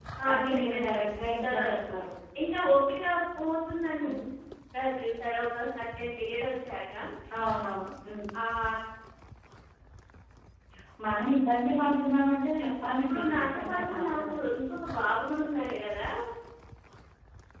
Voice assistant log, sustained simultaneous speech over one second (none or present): present